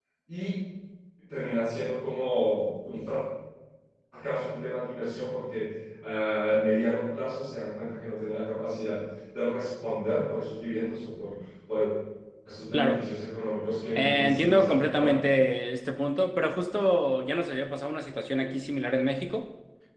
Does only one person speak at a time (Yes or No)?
No